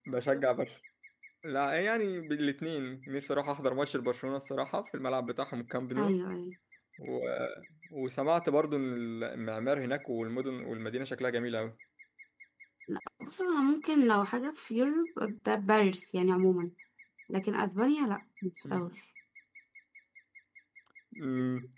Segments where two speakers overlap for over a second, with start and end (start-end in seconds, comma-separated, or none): none